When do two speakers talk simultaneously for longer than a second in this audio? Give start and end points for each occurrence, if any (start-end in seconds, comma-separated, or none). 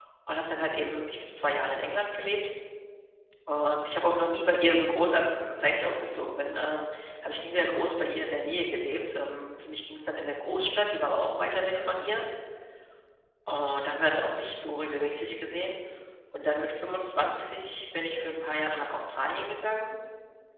none